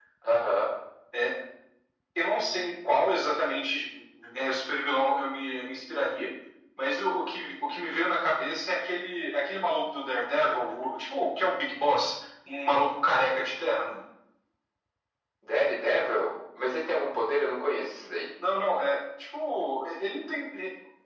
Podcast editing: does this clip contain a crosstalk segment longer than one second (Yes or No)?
No